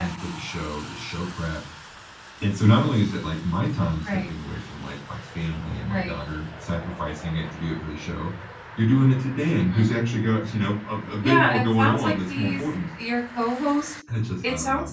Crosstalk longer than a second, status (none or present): present